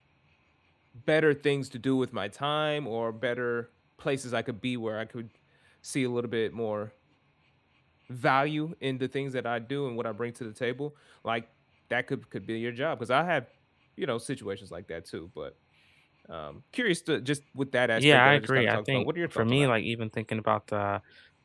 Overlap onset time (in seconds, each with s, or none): 18.0 s